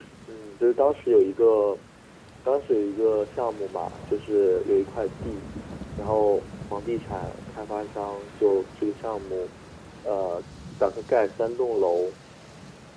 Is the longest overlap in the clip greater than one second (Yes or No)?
No